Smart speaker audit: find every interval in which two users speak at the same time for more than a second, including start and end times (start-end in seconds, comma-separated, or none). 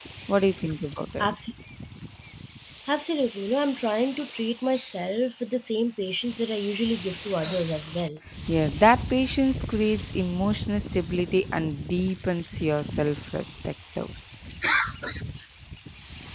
none